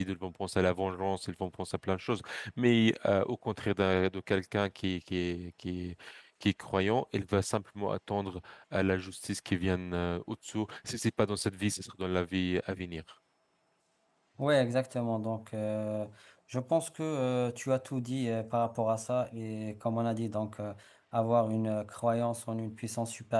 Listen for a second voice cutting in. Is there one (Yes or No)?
No